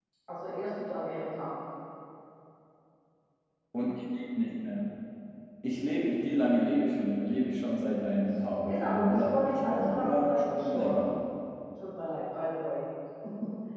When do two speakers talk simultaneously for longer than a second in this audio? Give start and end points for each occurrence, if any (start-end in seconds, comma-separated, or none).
8.7-11.1